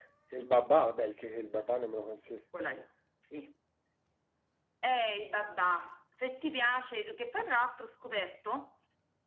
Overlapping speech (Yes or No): No